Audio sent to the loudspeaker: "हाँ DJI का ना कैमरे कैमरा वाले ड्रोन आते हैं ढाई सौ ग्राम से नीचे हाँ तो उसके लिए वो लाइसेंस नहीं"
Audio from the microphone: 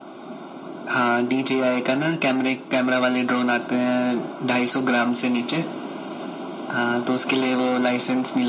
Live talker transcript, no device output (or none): none